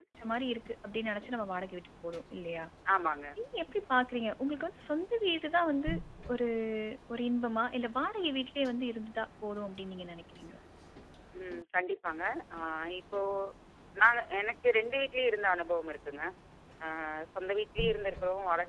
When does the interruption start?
none

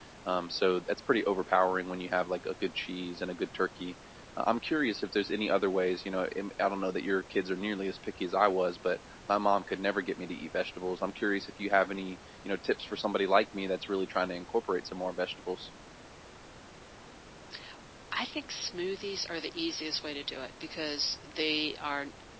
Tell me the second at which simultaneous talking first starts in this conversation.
none

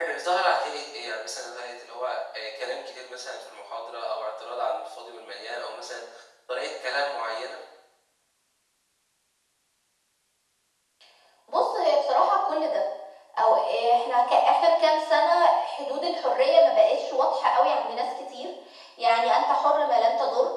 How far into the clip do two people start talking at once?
none

